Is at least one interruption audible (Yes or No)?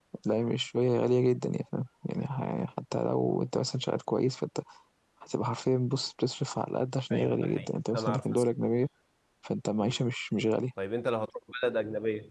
Yes